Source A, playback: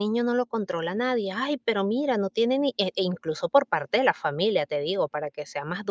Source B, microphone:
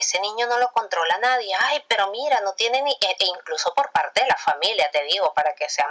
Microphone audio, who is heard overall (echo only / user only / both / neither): echo only